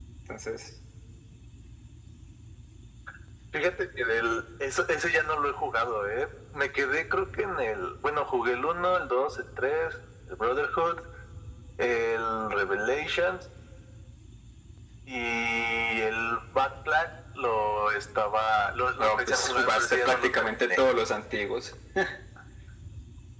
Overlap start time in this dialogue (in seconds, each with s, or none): 19.0 s